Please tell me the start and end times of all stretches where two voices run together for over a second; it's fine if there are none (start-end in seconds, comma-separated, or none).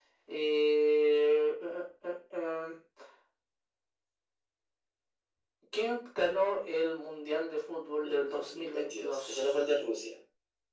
8.0-9.5